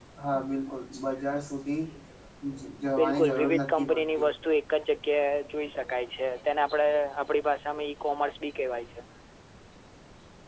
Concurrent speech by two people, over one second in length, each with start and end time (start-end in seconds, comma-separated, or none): 3.0-4.3